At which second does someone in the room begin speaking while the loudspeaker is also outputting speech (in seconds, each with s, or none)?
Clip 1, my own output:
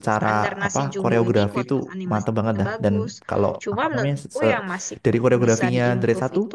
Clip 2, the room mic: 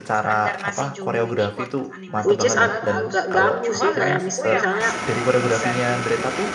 2.2 s